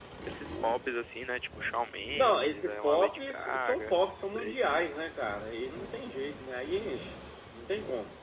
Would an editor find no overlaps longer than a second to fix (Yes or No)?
No